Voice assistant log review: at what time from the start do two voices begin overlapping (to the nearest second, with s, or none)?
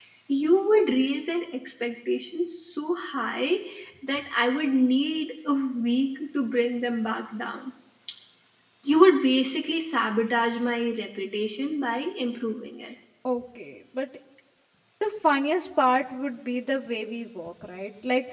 none